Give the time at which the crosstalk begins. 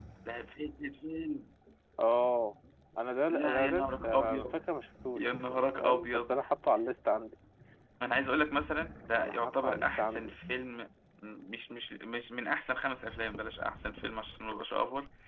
3.3 s

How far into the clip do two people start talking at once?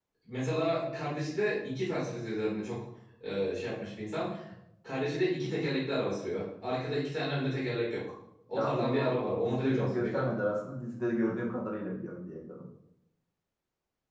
8.6 s

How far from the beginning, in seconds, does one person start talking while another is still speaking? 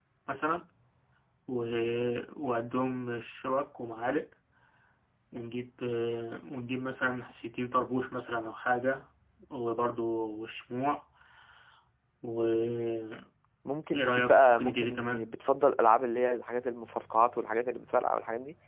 13.9 s

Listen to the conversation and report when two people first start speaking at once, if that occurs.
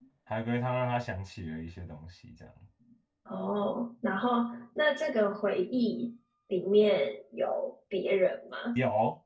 none

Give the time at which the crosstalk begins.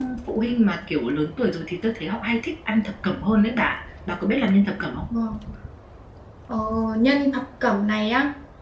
none

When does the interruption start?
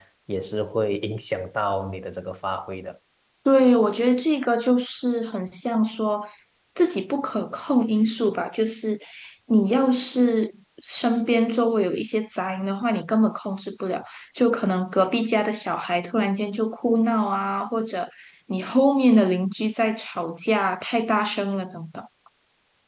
none

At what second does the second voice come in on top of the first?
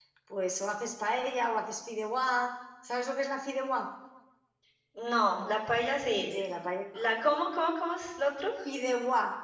none

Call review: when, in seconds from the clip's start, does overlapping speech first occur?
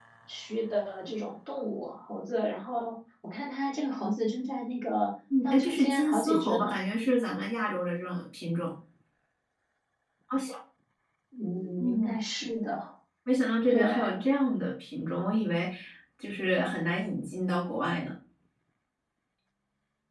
5.4 s

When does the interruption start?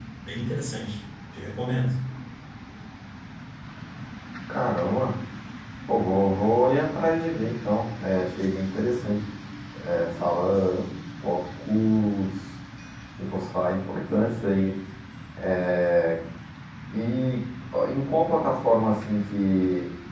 none

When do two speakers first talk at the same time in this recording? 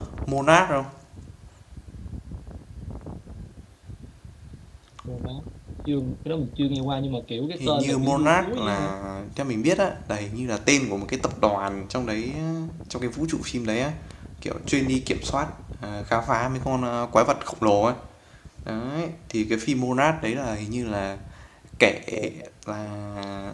7.6 s

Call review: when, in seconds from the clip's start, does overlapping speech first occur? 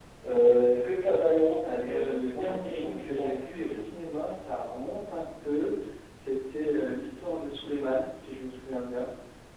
1.8 s

